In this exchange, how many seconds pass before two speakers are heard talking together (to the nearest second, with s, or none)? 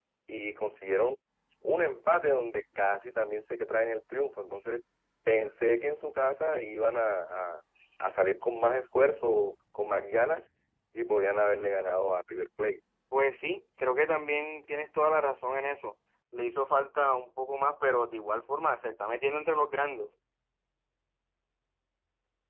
none